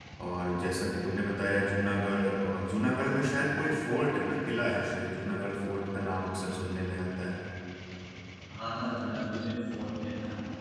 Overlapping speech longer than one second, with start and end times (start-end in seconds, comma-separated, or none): none